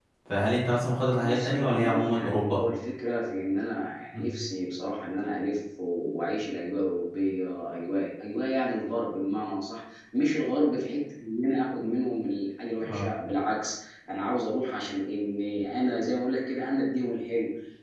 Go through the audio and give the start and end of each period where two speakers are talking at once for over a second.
1.2-2.6

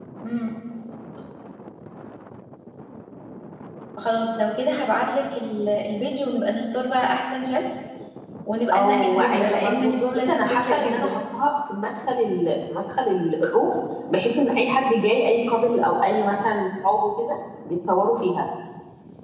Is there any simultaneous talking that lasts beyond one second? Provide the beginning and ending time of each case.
8.7-11.2

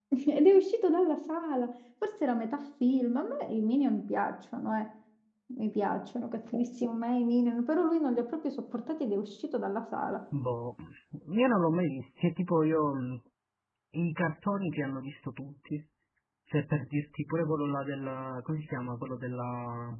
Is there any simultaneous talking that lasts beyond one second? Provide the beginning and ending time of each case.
none

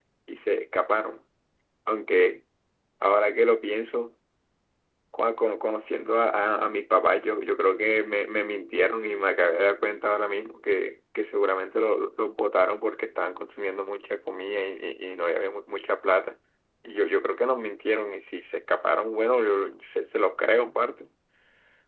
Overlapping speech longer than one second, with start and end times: none

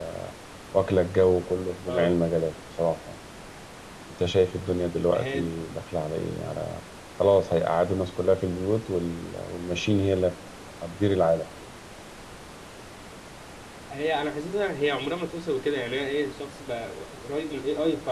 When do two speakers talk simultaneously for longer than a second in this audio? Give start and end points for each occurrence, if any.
none

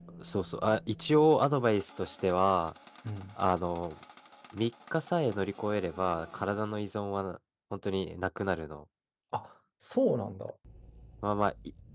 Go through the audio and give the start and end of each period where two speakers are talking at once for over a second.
none

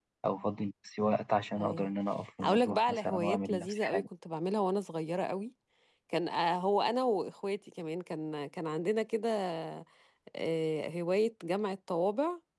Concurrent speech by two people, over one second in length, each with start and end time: 2.4-4.0

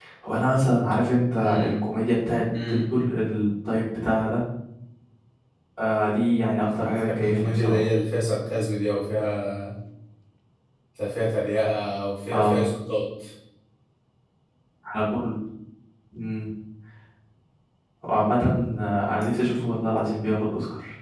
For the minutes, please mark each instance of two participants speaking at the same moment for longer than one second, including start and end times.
6.6-7.8

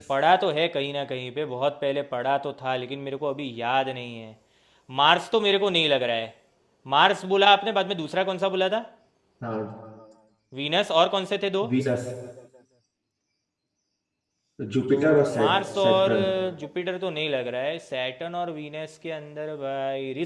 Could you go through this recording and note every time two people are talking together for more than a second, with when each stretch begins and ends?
14.9-16.1

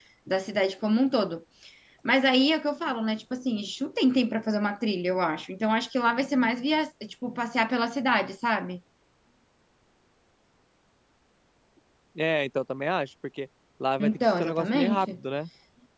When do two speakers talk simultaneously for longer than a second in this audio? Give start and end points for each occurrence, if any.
14.0-15.2

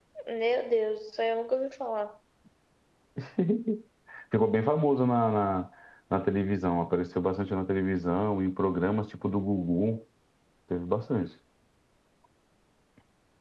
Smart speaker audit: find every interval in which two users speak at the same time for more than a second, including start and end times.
none

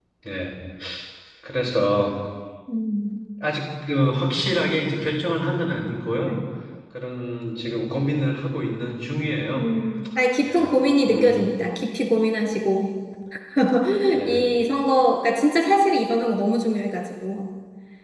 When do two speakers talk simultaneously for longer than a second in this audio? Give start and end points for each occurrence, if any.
none

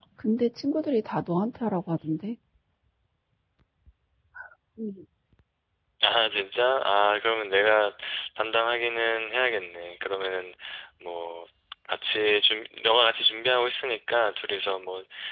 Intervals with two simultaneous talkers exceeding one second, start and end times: none

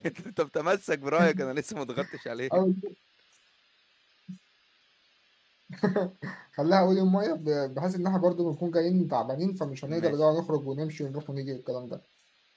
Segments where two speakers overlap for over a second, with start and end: none

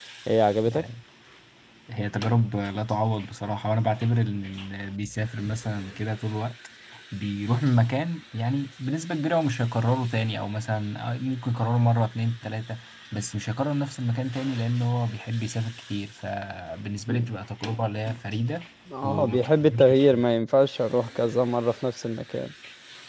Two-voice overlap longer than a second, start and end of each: 19.0-20.2

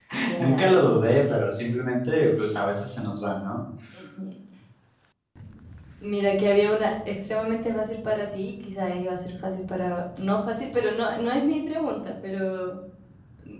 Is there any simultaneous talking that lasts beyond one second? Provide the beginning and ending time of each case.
none

